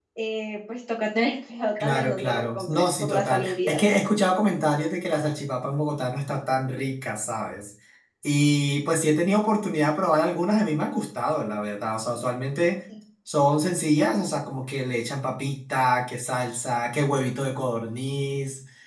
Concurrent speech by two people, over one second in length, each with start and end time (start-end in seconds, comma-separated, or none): 1.8-4.0